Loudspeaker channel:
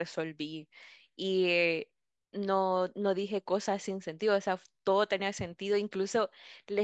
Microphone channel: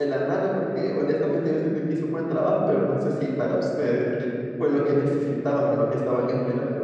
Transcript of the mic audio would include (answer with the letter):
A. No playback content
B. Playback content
A